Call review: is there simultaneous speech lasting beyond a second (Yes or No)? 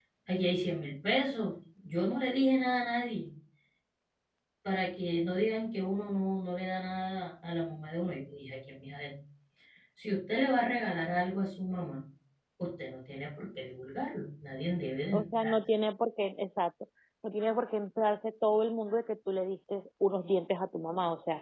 No